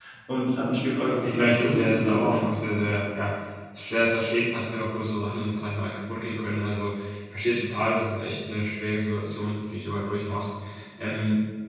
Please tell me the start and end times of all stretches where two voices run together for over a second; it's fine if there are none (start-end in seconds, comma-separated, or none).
1.2-2.4